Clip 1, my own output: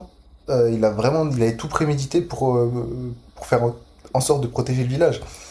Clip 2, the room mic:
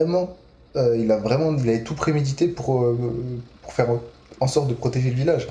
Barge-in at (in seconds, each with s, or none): none